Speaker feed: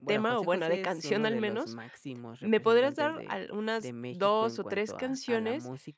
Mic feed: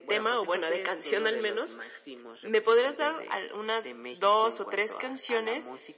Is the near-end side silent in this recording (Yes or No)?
Yes